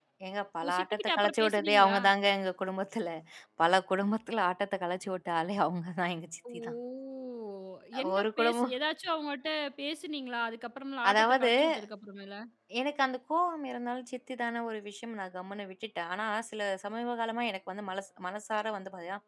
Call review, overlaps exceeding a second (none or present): present